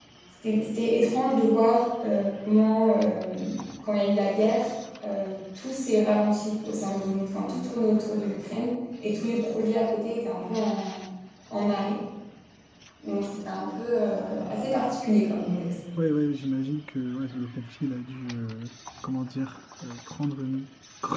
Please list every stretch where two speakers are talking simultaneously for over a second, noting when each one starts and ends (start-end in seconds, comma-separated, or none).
none